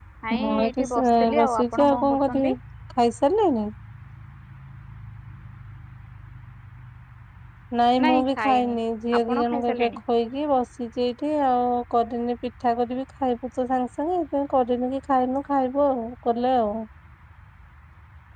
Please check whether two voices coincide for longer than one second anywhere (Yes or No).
Yes